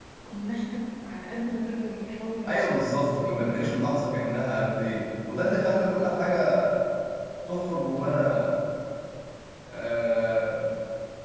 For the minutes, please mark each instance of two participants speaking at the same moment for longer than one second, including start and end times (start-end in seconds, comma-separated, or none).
2.5-4.0